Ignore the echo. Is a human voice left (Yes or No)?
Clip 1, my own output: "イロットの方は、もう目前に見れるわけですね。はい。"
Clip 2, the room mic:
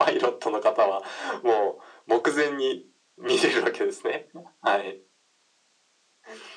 No